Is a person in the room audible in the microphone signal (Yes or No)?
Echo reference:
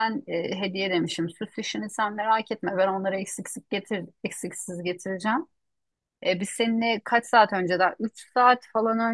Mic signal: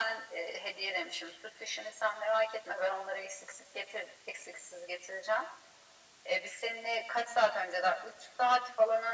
No